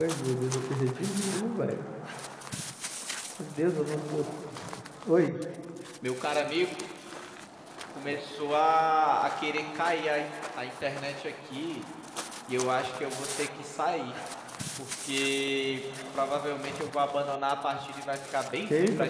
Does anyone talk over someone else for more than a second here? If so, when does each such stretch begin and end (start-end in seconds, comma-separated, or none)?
none